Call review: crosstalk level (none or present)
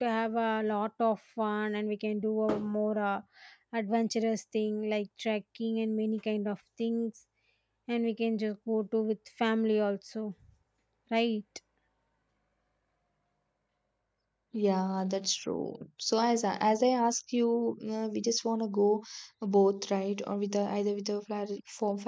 none